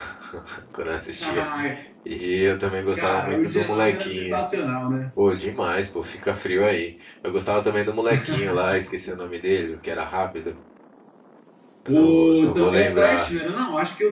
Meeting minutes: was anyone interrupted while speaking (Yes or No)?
Yes